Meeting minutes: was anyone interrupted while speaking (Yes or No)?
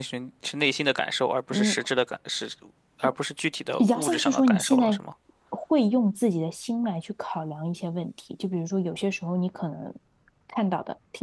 Yes